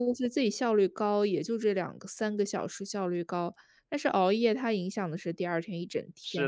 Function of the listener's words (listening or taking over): taking over